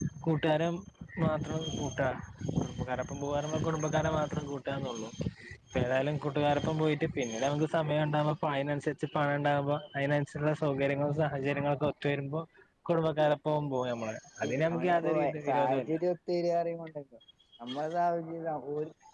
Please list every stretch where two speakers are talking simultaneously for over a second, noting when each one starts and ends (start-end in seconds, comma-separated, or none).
14.4-15.9